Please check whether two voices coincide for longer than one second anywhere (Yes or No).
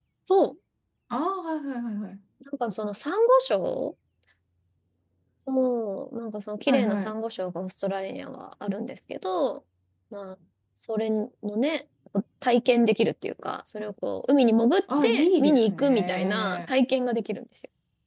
Yes